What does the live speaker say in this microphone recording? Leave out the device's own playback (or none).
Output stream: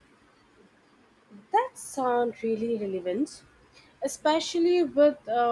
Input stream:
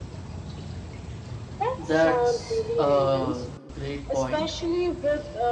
That's a great point.